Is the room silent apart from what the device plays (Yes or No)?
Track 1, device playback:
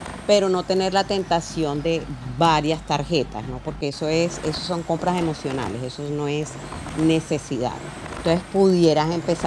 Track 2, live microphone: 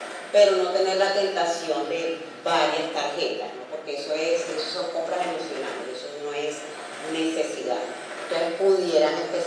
Yes